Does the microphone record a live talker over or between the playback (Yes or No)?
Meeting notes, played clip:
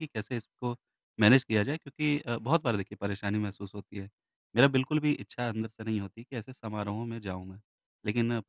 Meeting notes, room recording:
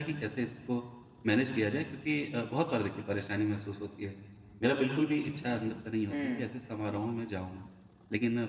Yes